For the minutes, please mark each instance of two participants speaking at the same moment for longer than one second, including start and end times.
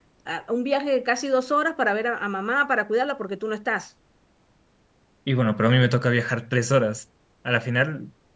none

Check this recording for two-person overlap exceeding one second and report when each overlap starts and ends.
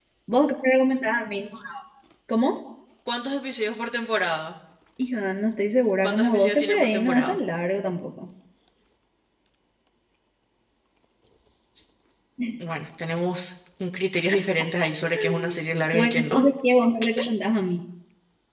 6.0-7.4

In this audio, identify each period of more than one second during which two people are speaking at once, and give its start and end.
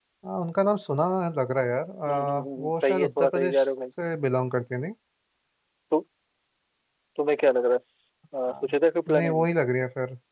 2.1-3.7

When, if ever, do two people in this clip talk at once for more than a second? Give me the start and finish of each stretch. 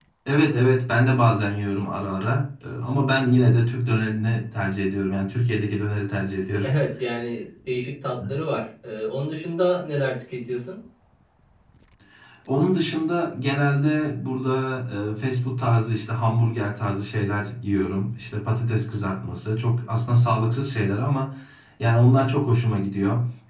none

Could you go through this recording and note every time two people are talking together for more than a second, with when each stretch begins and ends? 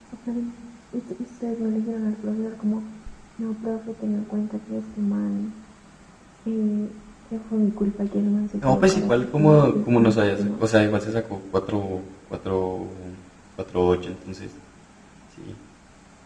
8.6-10.6

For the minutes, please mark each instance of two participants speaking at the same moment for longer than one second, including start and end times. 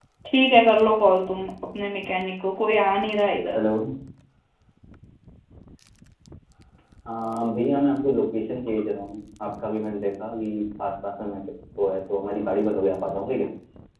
none

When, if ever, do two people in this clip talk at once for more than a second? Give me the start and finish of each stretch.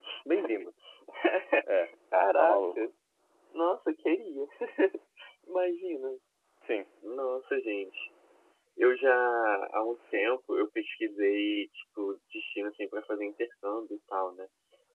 none

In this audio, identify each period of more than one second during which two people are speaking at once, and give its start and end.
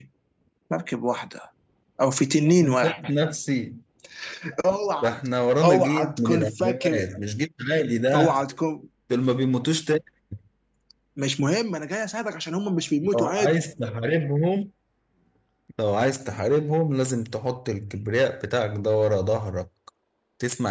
5.6-7.0

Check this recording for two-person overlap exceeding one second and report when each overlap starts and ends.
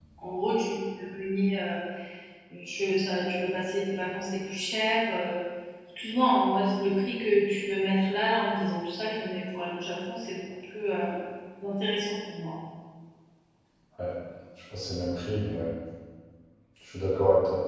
none

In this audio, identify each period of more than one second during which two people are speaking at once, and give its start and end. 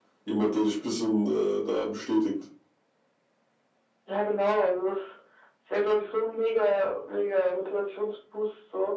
none

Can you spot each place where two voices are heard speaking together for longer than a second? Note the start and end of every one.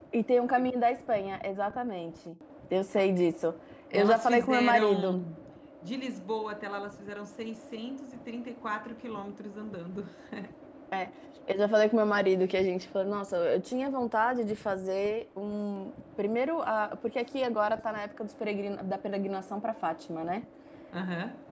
3.9-5.2

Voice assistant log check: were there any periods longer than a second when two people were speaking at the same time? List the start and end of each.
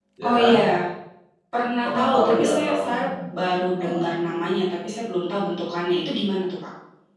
1.8-3.1

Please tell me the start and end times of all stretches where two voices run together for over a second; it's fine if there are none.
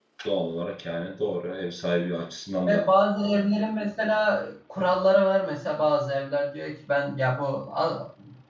none

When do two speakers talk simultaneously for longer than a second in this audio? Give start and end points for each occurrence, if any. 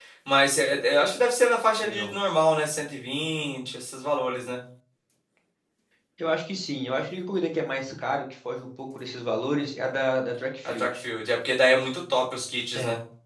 none

